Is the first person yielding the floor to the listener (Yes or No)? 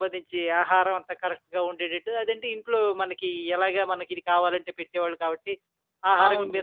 No